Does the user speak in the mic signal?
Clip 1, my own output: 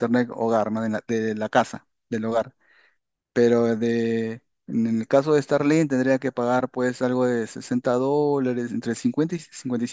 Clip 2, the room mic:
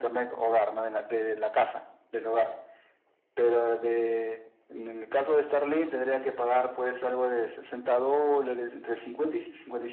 No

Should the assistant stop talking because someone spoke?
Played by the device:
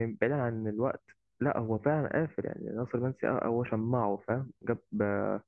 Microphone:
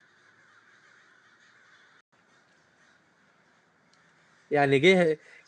Yes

